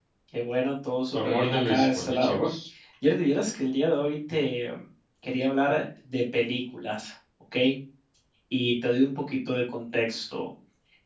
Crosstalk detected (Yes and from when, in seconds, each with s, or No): Yes, from 1.1 s